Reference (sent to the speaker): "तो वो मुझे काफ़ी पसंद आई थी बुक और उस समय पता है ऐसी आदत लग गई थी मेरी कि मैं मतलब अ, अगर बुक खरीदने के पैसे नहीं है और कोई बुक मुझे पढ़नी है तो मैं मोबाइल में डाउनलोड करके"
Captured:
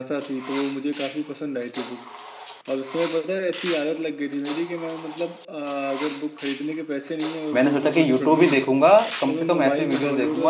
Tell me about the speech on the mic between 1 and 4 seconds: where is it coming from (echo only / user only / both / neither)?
echo only